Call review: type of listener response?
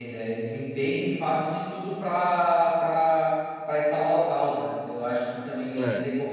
listening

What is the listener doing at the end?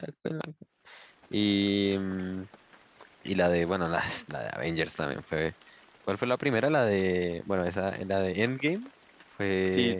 taking over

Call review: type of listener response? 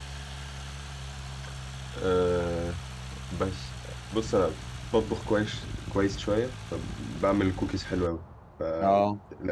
listening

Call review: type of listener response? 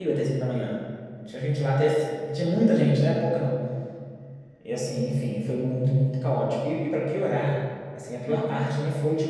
listening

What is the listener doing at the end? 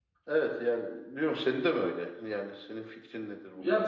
taking over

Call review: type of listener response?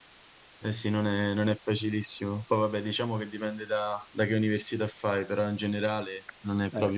taking over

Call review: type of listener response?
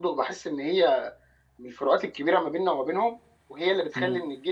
listening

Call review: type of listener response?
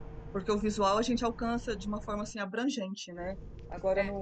listening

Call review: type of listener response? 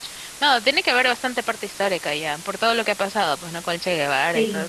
taking over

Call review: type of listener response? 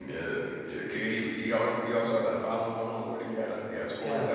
taking over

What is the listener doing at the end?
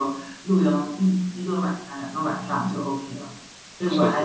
listening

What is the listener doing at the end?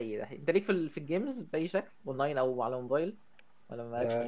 taking over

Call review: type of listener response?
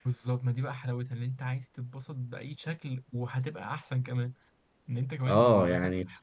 taking over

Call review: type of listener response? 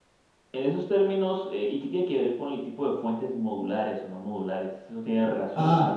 taking over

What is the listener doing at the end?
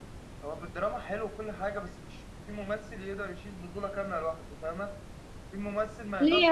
taking over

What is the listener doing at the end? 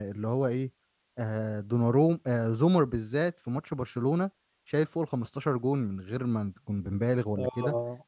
listening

